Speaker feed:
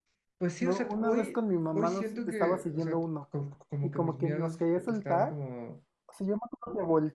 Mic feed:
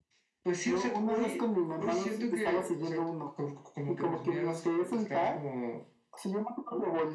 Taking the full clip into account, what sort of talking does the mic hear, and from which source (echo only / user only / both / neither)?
echo only